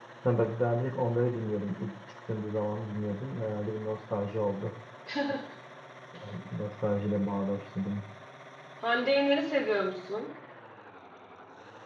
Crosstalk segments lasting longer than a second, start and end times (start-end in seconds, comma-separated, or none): none